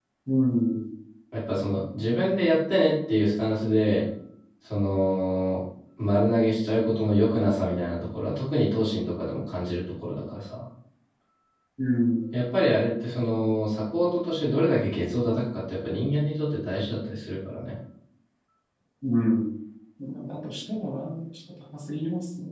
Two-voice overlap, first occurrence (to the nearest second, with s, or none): none